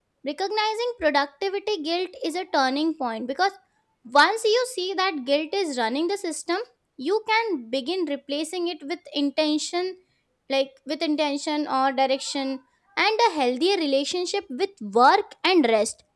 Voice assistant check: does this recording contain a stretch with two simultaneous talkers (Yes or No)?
No